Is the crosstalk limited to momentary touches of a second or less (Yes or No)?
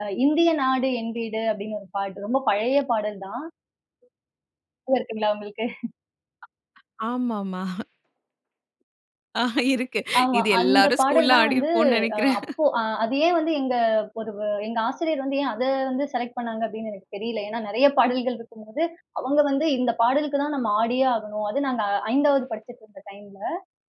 No